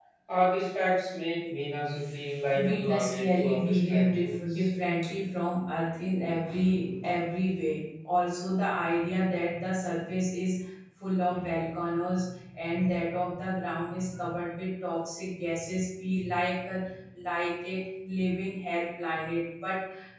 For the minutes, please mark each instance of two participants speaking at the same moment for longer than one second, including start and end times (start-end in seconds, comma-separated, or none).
2.5-4.7